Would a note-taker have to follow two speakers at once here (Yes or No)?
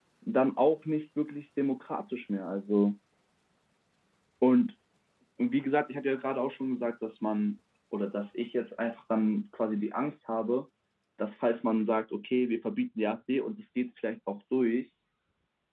No